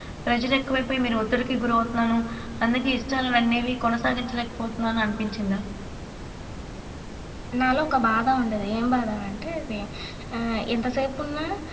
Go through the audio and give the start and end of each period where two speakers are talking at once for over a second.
none

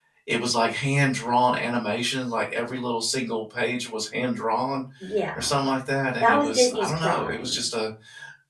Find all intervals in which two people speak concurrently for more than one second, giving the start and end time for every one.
6.2-7.6

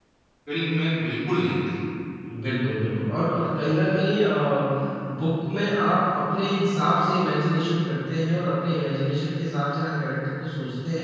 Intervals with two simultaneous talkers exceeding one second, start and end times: none

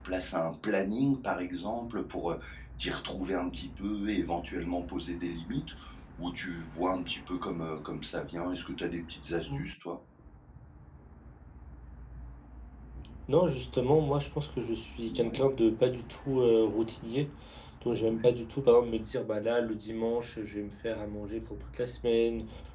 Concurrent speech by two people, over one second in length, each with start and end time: none

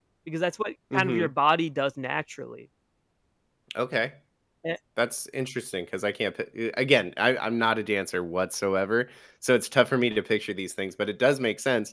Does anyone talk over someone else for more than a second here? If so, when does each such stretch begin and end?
none

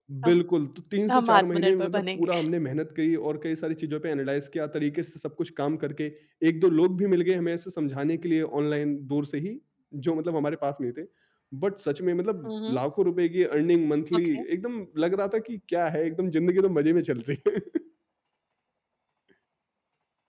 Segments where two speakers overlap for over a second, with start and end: 1.1-2.3

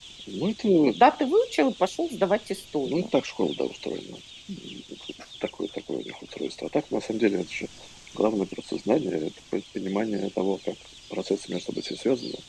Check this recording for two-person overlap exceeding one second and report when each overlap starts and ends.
none

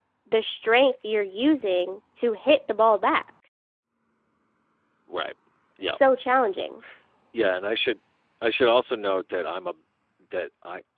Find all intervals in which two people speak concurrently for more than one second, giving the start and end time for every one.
none

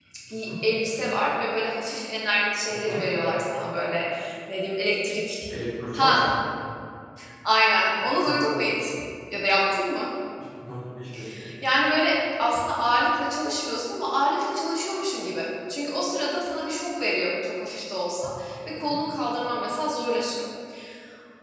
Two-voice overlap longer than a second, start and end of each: none

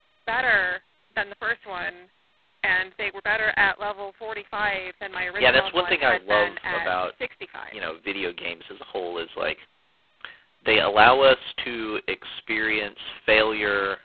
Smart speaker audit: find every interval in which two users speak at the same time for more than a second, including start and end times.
5.4-6.9

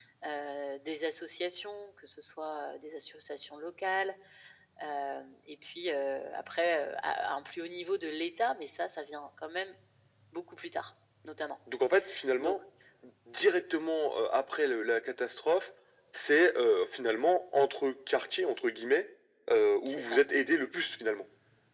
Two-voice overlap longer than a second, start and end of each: none

